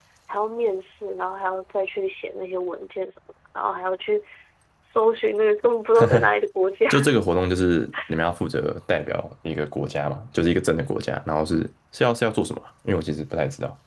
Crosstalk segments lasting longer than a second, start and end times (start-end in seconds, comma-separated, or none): none